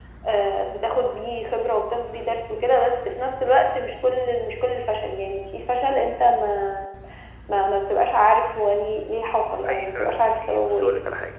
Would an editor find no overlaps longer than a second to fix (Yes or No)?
No